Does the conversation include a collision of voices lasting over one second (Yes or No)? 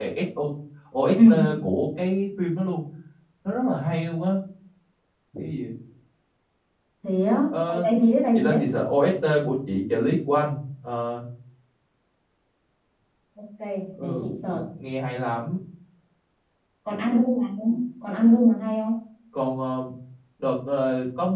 No